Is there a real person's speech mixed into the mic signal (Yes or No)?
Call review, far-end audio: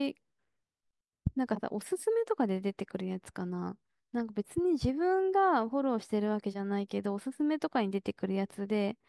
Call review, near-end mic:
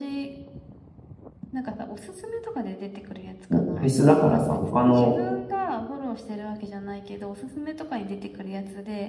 Yes